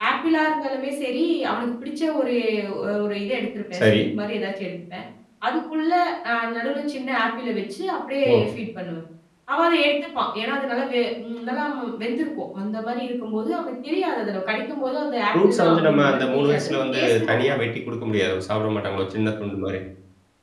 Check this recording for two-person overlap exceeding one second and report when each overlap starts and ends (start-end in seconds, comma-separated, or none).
15.3-17.6